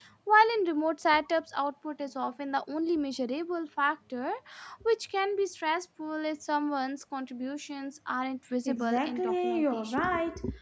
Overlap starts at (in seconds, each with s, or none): 8.7 s